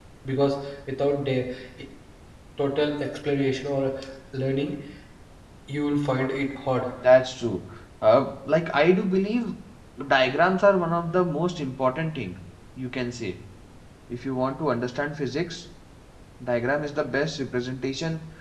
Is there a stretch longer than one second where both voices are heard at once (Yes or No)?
No